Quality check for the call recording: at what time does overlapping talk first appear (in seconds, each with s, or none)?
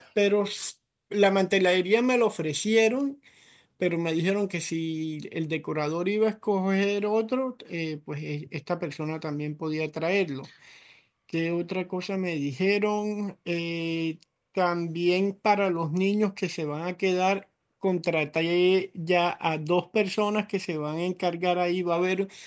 none